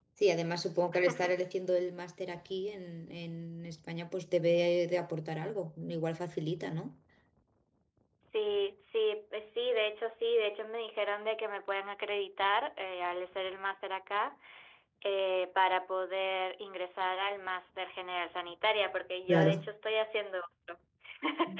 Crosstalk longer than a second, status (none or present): none